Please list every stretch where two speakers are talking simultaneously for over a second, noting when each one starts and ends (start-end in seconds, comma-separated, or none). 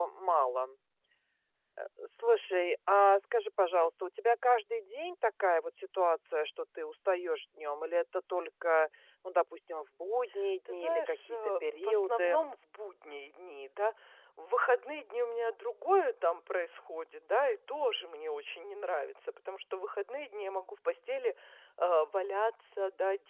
10.8-12.4